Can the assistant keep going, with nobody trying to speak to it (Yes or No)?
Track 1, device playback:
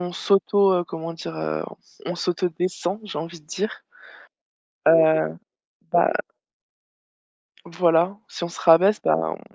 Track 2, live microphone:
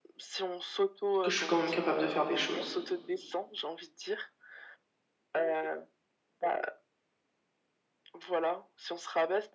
No